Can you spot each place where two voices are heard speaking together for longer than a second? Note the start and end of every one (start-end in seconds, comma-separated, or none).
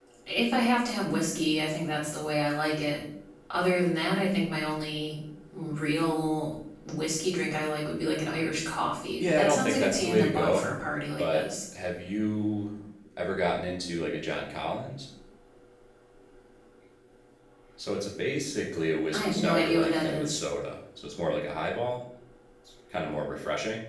9.2-10.7, 19.1-20.4